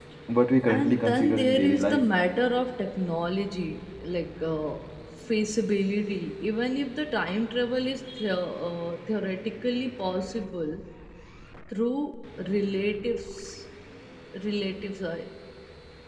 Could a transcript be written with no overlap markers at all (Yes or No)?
No